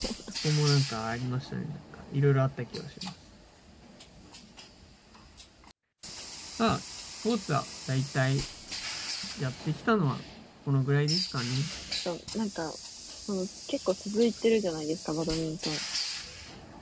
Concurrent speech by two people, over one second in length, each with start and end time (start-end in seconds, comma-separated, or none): none